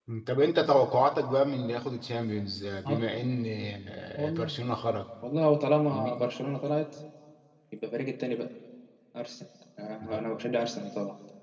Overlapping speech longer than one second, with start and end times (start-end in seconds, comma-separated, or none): none